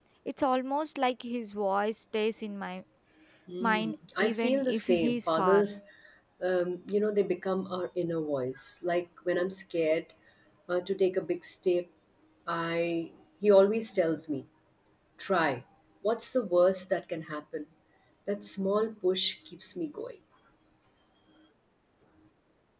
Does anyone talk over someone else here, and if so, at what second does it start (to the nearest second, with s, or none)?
4 s